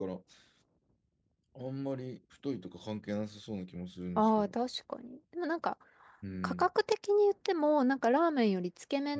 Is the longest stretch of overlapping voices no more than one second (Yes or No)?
Yes